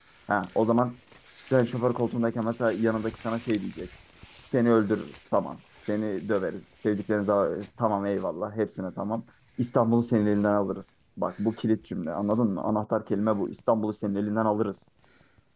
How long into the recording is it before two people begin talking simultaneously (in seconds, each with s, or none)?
none